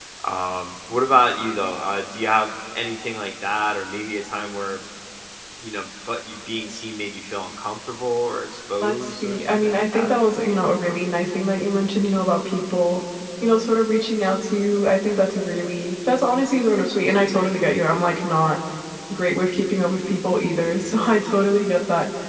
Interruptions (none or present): present